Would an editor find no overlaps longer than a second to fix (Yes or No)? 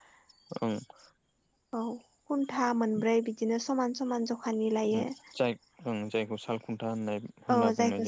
Yes